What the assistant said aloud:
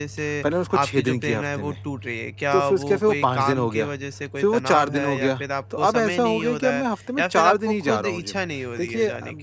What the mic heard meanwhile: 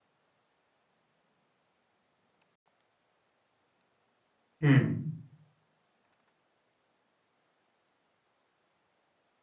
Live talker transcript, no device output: हुँ।

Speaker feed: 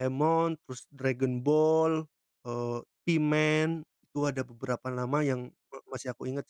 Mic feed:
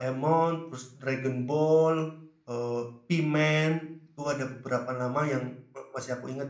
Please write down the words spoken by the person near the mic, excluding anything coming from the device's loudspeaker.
none

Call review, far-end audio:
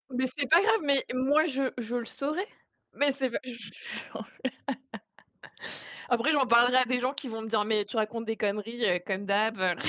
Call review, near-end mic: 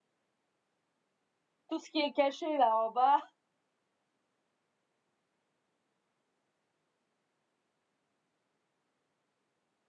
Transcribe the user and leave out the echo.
tout ce qui est caché là en bas,

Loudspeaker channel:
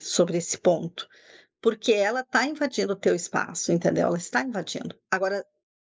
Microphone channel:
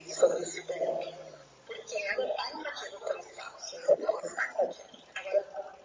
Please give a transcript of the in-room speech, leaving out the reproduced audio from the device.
none

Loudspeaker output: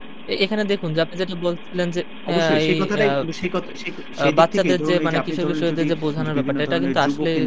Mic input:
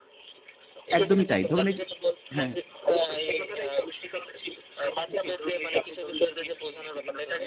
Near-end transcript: একদমই তাই। ধরুন, এই যে হ্যাঁ, হ্যাঁ।

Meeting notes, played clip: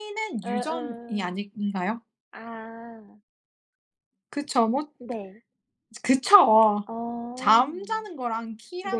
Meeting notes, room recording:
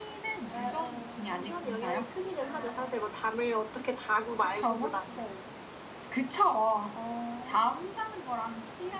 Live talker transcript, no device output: 유전 영향이 크기는 하죠. 사실 뭐 잠을 어떻게 자고 말고 보다는.

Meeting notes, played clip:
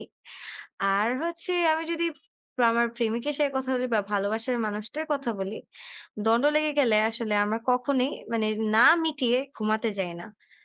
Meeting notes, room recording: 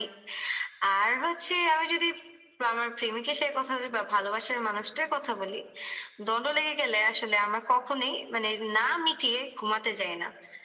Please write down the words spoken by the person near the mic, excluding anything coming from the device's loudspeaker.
none

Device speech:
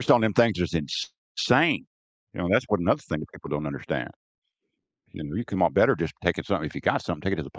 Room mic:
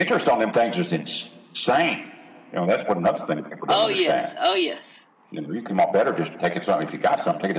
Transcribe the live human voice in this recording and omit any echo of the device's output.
Oh, yes. Oh, yes.

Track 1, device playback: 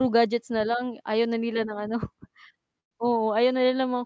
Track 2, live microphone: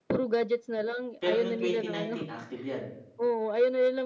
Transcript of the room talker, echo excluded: pero nung 2019, active 'yan.

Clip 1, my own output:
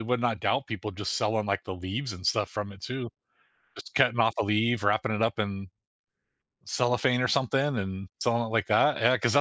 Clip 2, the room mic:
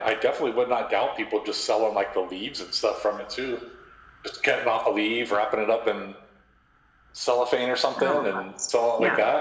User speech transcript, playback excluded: a loe plants, yeah.

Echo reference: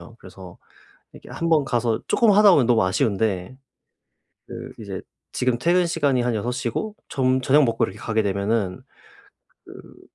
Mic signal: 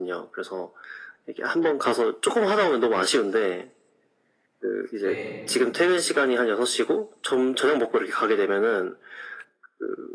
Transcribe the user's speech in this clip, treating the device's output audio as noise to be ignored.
네.

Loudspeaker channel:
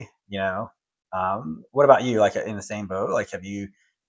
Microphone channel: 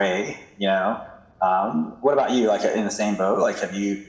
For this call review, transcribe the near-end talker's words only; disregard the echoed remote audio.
none

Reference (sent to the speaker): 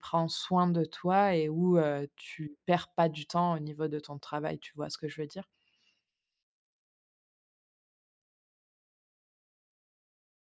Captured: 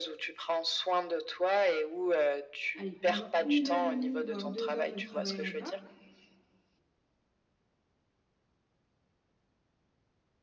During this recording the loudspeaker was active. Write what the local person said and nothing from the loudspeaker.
allez pendant 1 heure et 1/2 voire 2 heures, je ne travaillerai pas,

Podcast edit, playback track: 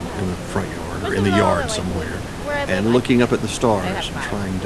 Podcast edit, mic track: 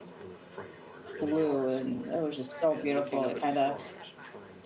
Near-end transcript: blue, and it was just so beautiful, it kinda,

